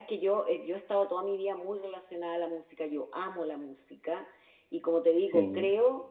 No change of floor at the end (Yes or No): Yes